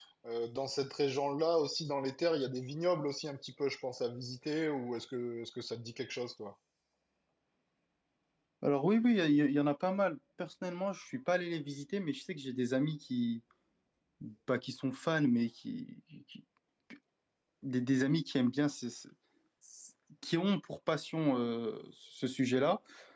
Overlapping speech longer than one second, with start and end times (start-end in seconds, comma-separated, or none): none